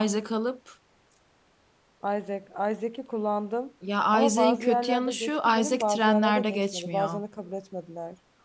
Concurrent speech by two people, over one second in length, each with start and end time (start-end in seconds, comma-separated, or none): 4.1-7.2